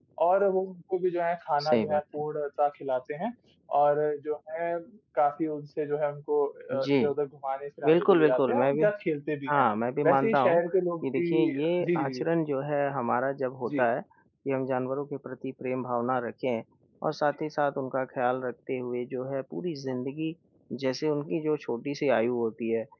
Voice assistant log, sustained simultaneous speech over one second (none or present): present